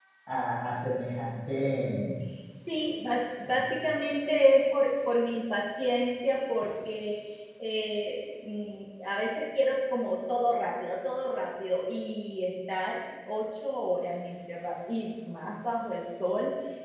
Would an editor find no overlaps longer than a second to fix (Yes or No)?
Yes